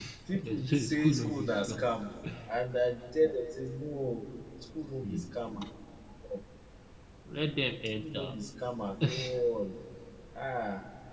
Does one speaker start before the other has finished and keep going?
Yes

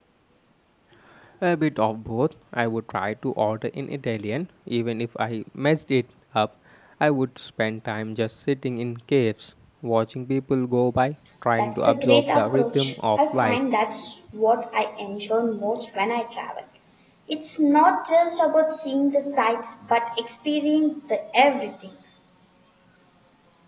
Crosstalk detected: Yes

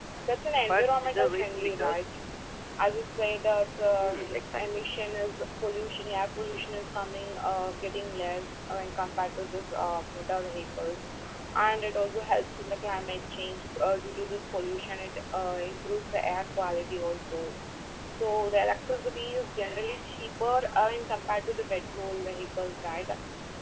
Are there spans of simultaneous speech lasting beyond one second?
Yes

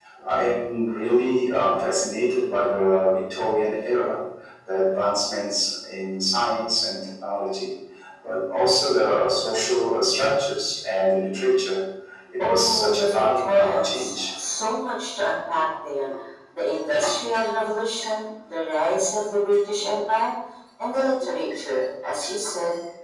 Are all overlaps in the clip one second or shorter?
No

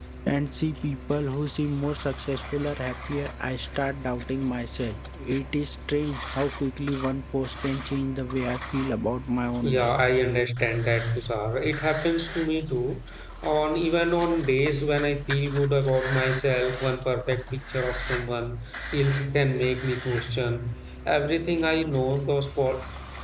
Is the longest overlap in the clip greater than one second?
No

